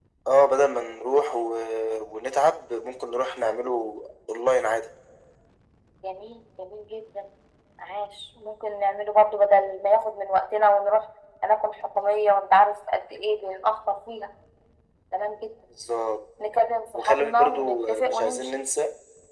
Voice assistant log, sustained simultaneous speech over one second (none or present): present